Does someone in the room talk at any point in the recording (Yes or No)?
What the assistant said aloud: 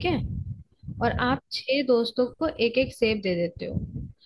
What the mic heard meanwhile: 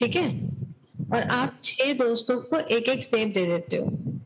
No